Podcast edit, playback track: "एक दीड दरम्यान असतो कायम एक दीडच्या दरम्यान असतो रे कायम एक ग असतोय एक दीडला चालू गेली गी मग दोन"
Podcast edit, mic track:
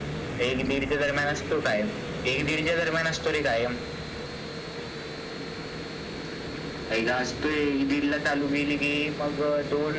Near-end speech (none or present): none